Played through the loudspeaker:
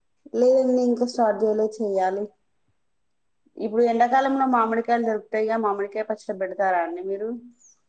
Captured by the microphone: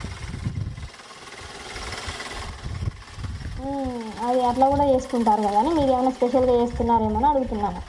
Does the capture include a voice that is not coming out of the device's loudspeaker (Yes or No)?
Yes